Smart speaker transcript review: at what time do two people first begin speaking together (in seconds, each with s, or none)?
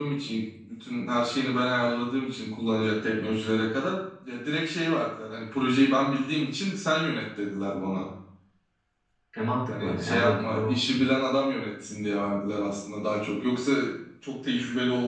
9.7 s